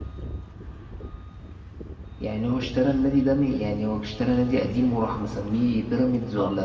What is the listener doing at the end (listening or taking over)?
taking over